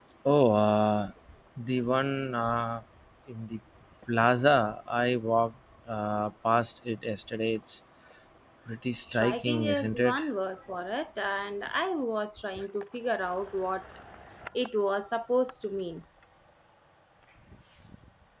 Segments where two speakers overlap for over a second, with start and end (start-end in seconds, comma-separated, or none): 9.0-10.2